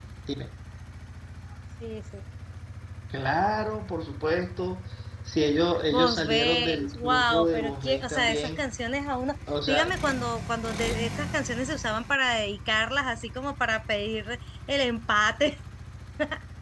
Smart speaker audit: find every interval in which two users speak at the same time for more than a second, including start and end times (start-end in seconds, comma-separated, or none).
5.9-8.6